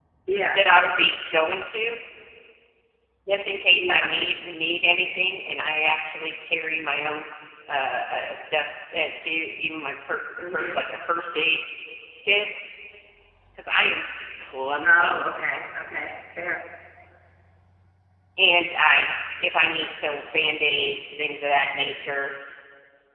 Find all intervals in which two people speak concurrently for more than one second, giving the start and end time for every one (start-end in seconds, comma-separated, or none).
none